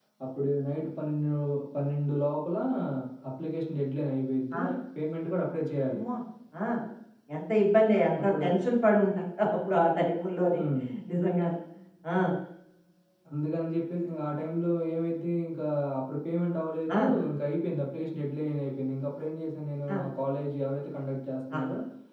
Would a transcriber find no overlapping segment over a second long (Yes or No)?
Yes